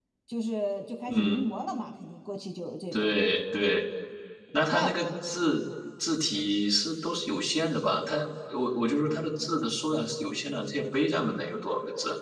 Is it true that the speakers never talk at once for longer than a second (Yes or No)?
Yes